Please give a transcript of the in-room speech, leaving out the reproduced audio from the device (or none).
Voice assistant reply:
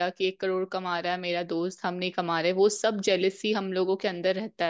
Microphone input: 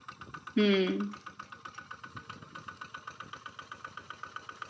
हम्म हम्म